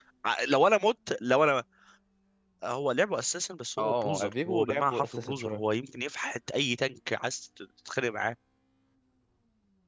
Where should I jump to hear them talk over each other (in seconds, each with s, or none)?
3.8 s